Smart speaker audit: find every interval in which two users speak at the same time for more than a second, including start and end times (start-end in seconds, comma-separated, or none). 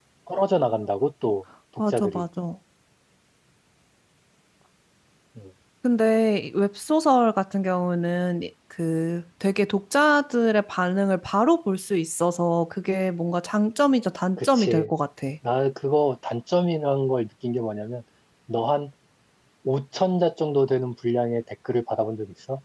none